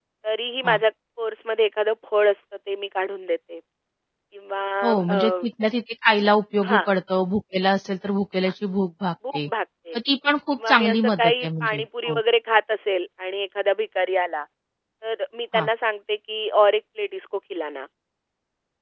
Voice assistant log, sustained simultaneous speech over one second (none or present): present